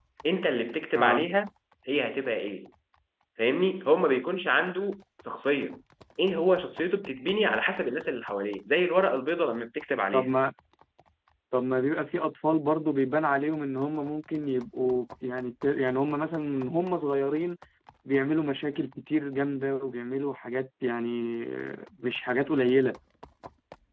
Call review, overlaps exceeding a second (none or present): none